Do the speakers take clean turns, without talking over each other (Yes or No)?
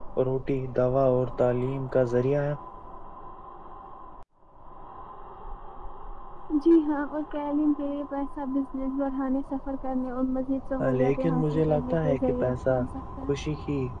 No